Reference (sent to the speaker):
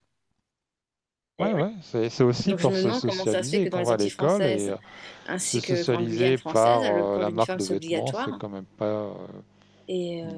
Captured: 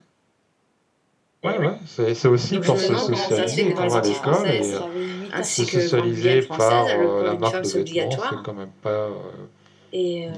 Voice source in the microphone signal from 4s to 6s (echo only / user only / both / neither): both